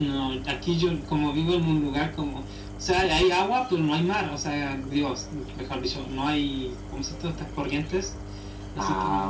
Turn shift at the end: Yes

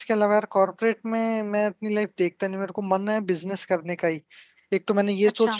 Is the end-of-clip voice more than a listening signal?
No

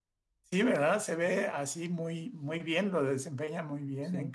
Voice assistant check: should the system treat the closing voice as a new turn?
No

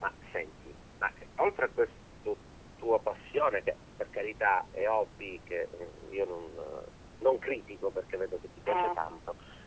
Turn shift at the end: No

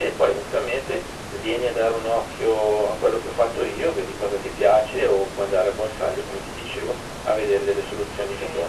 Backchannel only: No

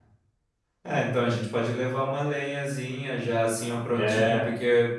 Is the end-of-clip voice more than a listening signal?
No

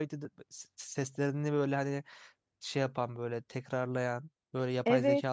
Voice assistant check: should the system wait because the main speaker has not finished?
No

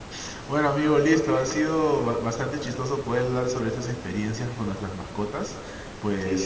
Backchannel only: Yes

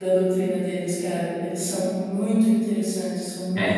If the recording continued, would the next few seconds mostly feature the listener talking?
Yes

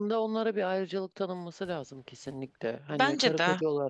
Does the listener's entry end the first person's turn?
No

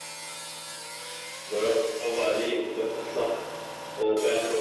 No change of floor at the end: Yes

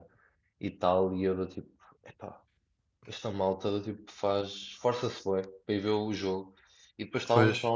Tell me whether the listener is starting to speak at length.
No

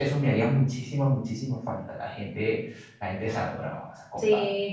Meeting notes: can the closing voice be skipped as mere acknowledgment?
No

